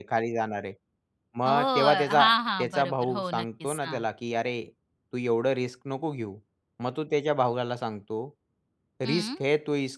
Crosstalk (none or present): present